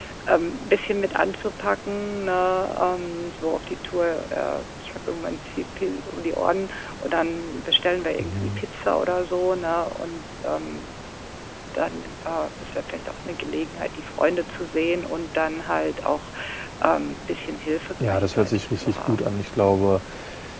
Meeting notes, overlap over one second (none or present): present